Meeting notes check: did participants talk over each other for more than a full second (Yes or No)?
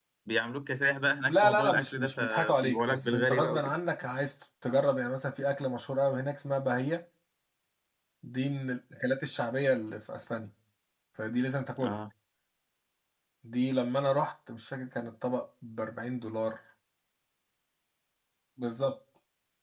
Yes